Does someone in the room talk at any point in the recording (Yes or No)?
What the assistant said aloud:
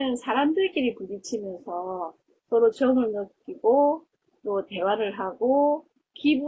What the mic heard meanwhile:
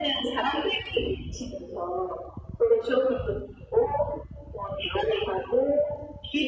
No